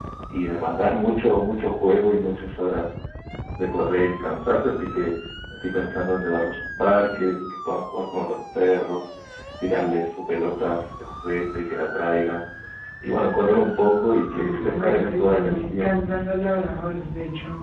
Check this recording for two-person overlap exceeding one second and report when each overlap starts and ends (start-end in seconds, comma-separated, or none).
14.3-15.9